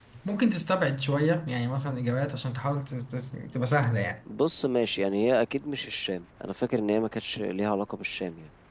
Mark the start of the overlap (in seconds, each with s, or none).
none